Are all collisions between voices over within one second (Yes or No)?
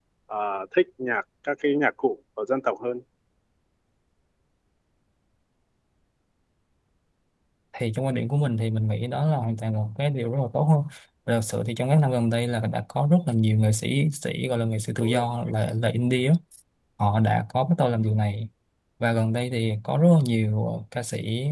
Yes